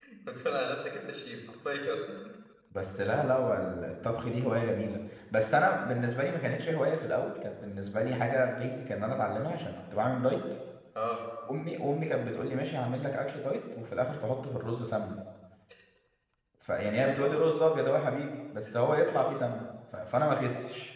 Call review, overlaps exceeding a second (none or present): none